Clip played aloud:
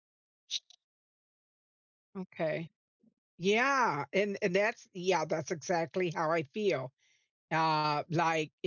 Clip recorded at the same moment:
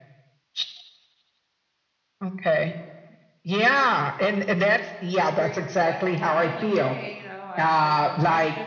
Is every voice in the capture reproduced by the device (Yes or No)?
No